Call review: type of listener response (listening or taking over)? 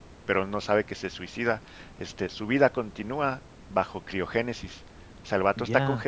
listening